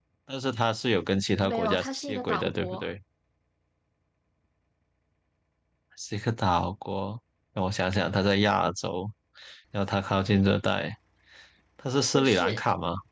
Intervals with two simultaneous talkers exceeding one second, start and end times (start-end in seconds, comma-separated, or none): 1.4-2.9